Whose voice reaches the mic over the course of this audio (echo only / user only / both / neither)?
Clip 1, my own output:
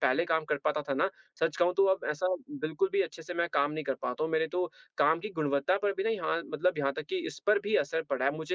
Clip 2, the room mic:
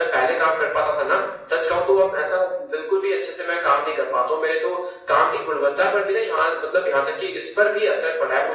echo only